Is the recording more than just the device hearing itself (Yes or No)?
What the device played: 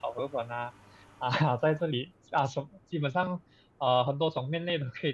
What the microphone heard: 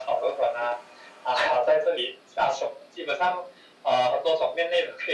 No